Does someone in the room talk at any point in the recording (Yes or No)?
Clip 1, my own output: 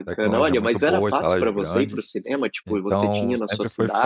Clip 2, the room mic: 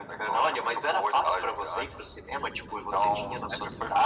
No